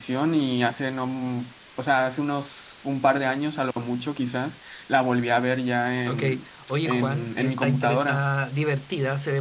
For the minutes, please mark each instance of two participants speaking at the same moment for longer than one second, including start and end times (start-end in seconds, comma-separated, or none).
6.8-8.2